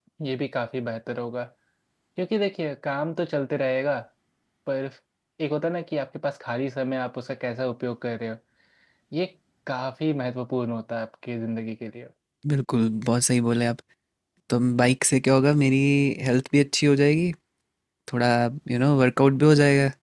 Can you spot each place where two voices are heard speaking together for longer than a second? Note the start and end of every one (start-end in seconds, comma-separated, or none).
none